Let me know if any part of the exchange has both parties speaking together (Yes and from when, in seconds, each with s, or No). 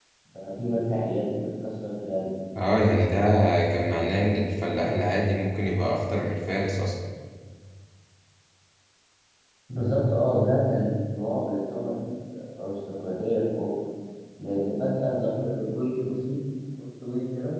No